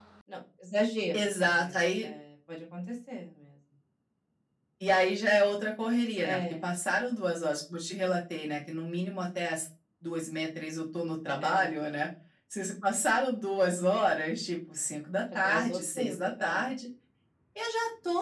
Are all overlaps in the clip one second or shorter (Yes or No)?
No